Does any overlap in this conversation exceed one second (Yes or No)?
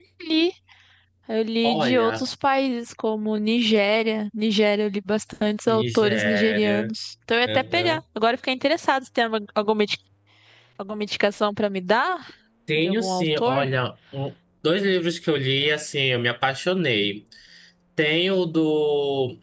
Yes